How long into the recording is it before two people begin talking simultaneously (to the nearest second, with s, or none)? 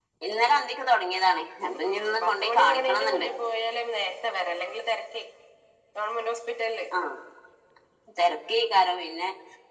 2 s